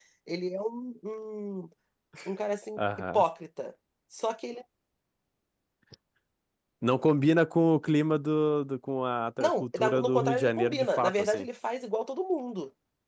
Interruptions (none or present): present